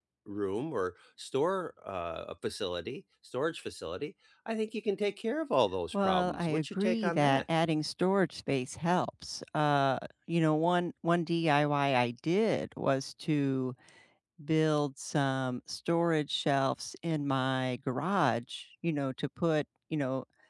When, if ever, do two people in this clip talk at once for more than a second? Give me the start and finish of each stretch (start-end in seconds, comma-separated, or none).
5.9-7.4